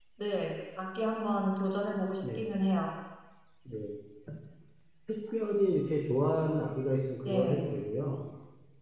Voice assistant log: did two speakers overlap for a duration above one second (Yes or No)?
No